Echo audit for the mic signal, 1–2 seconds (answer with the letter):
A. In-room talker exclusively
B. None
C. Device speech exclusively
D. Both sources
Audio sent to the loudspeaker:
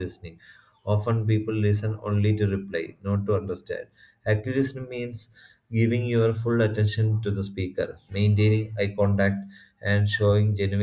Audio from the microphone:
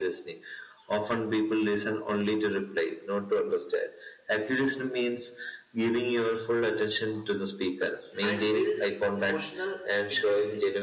C